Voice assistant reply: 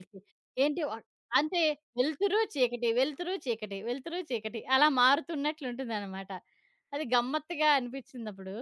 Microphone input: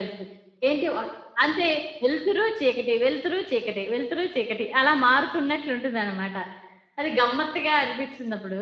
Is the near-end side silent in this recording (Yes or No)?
Yes